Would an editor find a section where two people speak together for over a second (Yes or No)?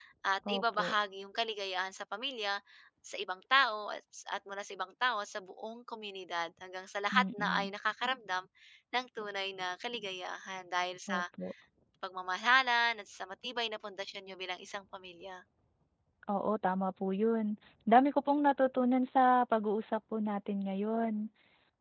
No